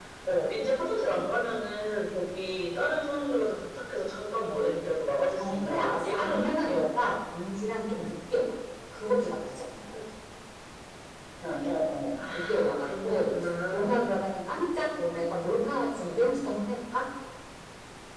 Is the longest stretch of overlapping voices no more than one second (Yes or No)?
No